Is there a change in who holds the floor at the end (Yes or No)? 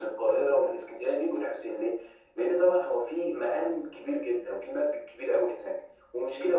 No